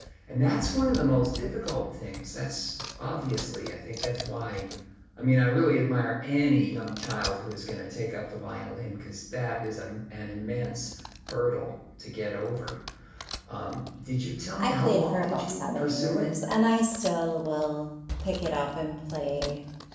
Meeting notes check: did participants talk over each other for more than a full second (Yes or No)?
Yes